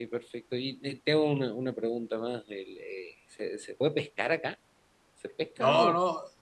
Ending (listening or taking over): taking over